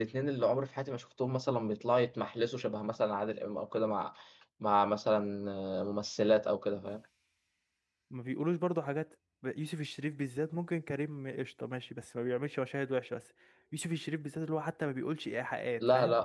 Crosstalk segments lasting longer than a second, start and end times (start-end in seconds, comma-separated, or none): none